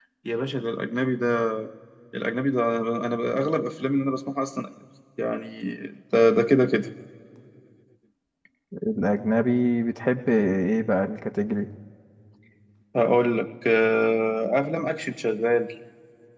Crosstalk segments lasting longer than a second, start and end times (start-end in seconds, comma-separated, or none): none